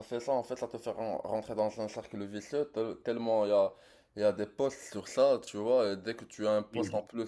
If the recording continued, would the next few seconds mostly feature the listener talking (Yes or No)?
No